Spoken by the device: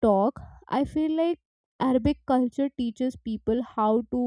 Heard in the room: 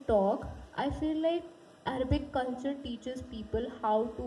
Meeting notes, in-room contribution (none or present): none